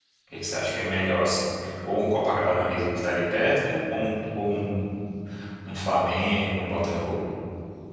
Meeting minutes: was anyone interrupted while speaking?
No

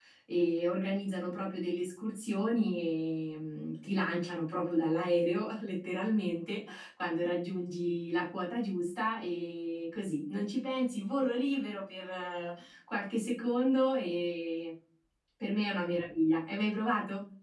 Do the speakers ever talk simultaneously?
No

